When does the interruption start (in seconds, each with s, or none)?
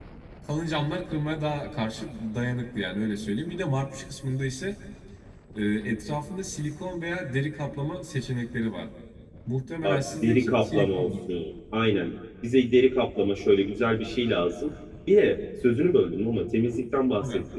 9.8 s